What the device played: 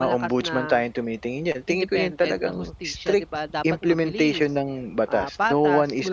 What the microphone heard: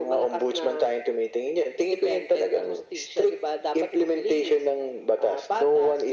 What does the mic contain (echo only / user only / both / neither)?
echo only